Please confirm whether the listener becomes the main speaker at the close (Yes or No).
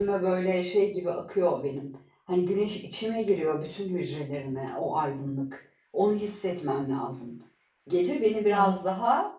No